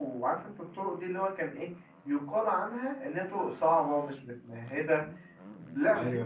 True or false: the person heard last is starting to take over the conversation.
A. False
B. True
A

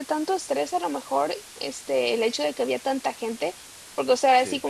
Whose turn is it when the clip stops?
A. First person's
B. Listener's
A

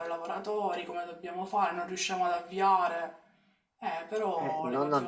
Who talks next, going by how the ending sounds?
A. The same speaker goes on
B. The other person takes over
B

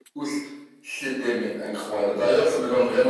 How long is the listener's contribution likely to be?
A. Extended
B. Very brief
B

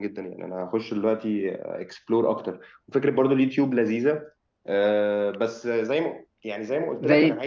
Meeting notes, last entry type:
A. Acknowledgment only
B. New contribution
B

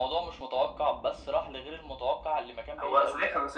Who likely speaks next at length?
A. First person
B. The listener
B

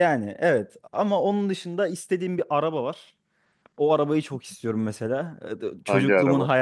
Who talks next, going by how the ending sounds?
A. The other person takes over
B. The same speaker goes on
B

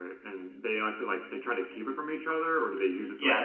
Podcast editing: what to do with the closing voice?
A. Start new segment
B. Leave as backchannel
A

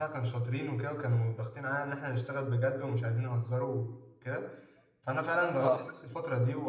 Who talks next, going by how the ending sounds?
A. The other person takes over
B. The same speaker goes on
B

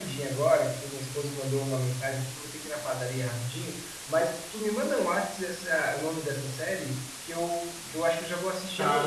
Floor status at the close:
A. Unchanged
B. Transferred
B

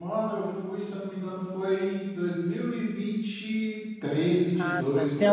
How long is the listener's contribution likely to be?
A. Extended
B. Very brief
A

